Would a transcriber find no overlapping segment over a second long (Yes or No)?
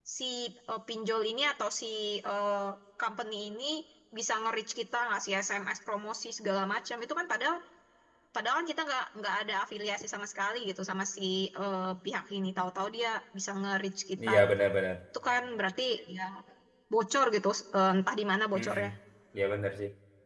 Yes